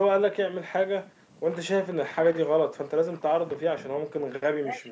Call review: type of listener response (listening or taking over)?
taking over